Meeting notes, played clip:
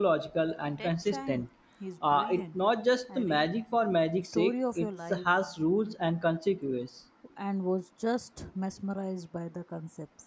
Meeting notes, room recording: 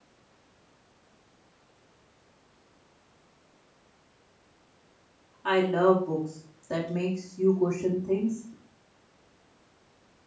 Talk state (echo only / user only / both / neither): user only